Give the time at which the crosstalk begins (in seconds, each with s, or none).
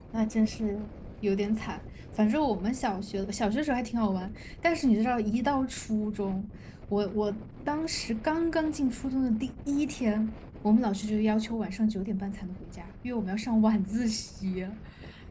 none